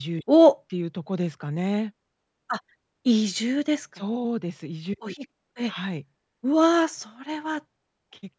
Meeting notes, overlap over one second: none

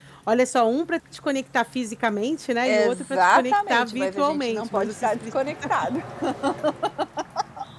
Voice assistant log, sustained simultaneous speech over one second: present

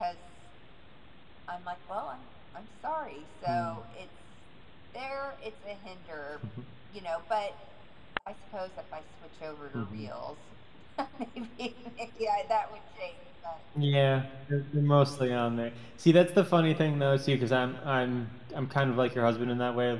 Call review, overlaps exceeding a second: none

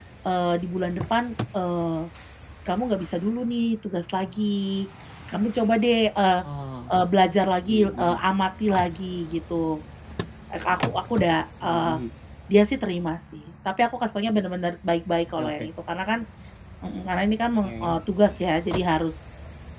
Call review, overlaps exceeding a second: none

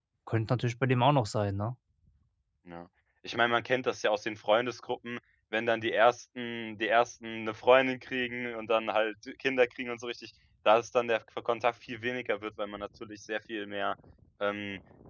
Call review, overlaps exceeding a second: none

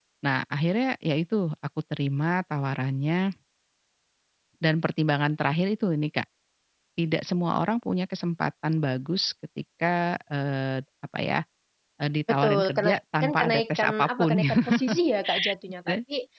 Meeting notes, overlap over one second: present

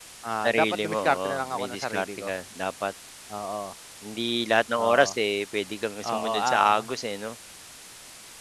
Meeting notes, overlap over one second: present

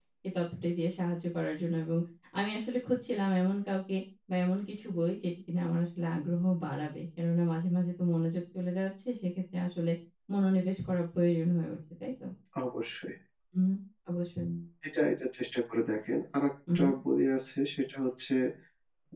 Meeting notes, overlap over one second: none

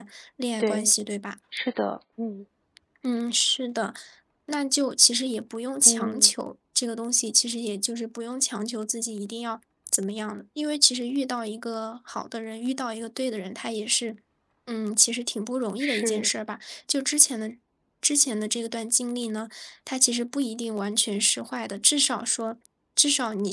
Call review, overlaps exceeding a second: none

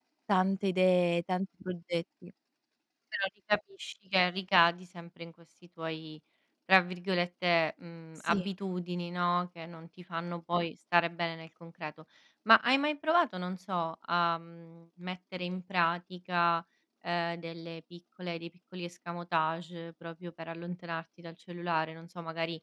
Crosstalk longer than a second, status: none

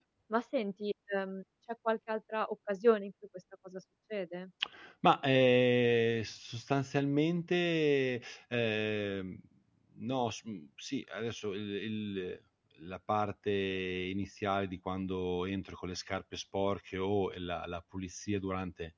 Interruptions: none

